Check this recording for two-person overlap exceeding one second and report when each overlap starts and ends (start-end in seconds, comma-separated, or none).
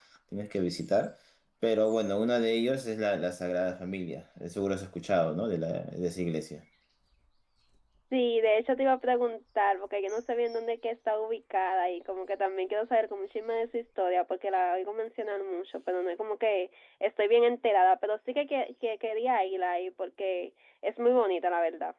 none